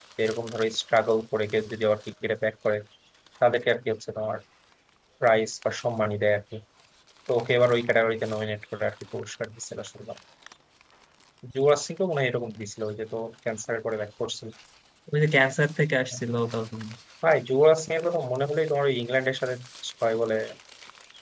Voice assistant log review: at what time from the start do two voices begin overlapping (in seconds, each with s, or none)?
none